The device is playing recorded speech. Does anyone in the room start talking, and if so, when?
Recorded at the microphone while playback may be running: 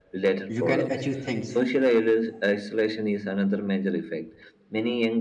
0 s

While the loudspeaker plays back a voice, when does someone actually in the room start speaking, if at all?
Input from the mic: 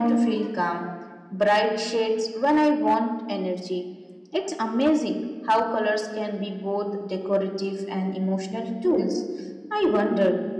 none

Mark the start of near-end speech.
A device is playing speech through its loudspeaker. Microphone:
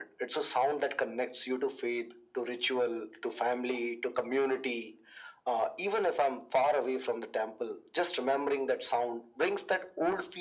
none

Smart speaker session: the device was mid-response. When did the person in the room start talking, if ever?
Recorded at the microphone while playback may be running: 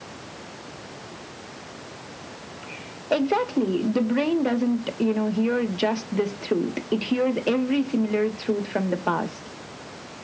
none

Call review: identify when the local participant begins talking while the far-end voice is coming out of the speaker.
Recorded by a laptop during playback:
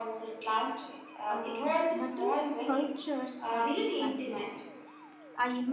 1 s

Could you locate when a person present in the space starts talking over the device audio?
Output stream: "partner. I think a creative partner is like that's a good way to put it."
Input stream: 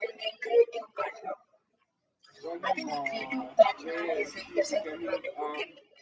2 s

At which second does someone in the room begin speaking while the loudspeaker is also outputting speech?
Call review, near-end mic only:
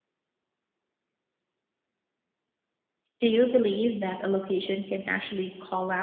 3 s

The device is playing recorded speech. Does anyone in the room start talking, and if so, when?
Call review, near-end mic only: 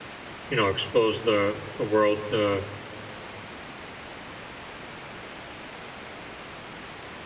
0 s

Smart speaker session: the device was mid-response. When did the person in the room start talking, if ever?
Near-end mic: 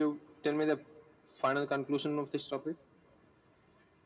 none

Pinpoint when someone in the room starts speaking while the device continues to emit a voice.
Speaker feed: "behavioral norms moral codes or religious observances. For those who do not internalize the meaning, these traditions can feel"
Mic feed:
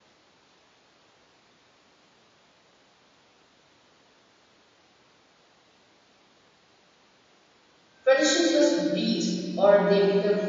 8 s

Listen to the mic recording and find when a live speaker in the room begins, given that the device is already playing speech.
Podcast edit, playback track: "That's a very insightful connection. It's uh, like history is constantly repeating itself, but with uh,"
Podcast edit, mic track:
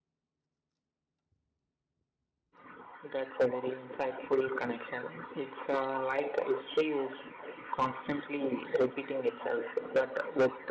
none

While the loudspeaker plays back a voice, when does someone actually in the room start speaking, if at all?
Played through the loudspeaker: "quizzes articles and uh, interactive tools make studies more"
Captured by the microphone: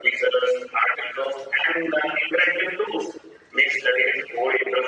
none

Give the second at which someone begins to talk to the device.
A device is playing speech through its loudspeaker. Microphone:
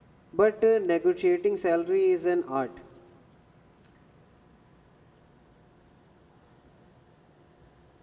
0 s

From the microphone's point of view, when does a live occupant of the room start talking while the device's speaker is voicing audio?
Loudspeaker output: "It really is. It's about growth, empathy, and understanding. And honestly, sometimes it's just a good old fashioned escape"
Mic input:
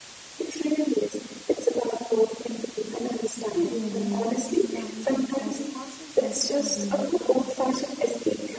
3 s

